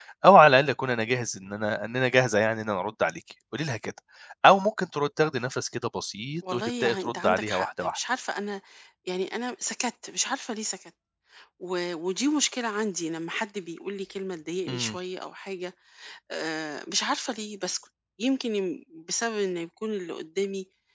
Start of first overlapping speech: 7 s

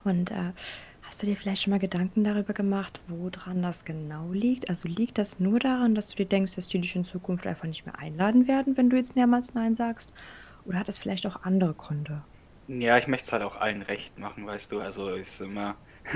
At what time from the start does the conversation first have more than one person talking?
none

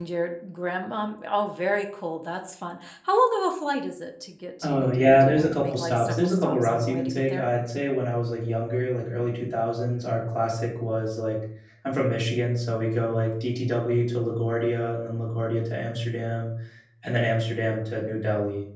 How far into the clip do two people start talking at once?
5 s

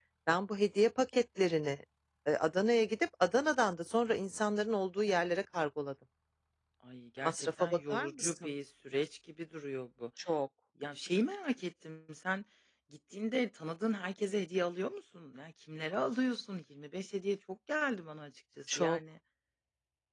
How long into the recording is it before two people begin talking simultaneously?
7 s

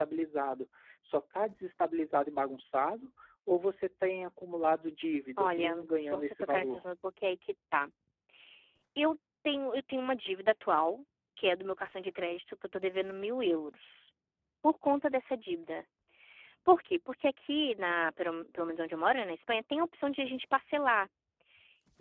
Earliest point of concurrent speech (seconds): 5 s

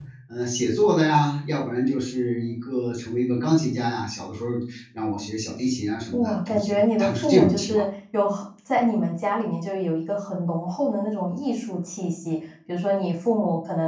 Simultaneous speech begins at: 6 s

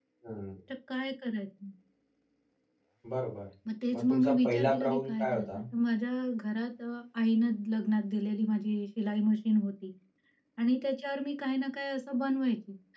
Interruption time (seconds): 4 s

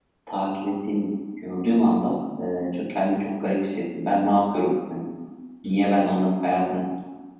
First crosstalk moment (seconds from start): none

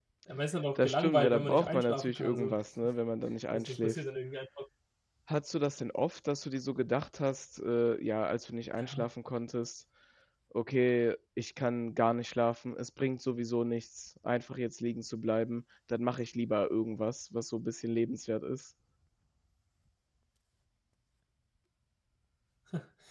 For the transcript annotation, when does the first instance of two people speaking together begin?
1 s

